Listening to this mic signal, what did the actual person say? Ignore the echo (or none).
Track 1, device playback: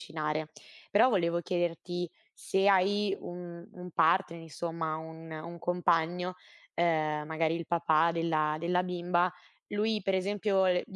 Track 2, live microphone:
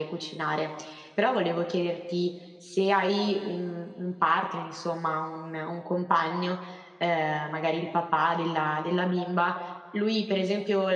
none